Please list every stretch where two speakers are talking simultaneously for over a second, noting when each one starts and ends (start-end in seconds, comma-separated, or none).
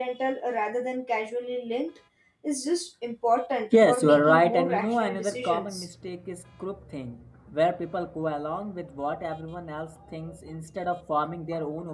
3.9-5.9